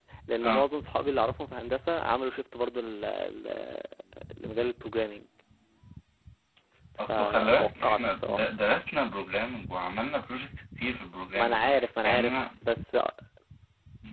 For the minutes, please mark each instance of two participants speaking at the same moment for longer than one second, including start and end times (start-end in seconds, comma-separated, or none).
7.1-8.5